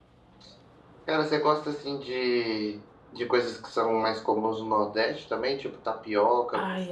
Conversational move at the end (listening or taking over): taking over